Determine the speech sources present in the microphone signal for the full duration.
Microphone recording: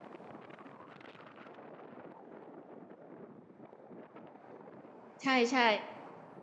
user only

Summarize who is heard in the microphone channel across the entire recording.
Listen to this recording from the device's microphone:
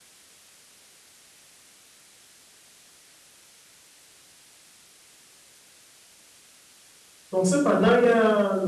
user only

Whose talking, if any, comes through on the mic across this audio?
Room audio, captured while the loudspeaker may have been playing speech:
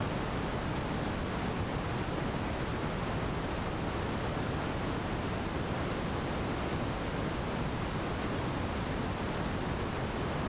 neither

